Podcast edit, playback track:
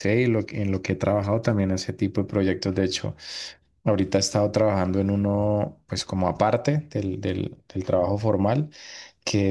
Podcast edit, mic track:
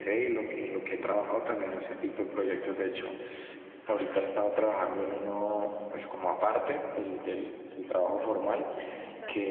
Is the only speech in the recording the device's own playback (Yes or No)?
No